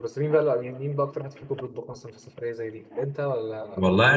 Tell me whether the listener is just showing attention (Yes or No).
No